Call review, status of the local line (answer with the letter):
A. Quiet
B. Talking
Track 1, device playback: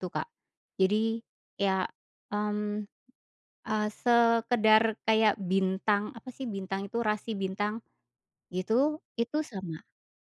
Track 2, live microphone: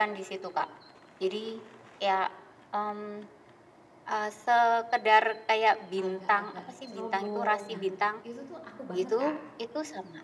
B